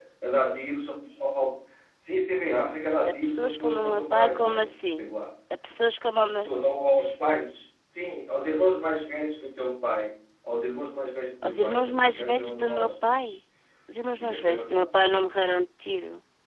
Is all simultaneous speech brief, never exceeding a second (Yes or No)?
No